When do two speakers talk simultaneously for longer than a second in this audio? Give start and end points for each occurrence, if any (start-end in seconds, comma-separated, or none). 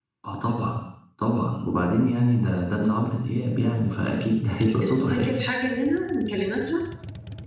none